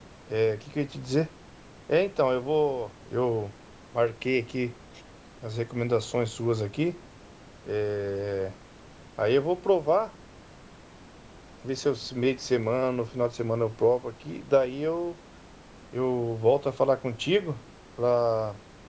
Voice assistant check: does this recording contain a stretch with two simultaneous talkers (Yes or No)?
No